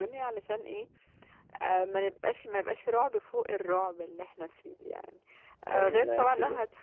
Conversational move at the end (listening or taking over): listening